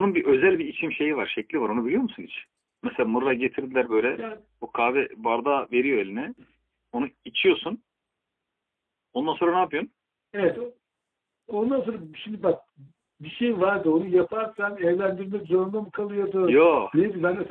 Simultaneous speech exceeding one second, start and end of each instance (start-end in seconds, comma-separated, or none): none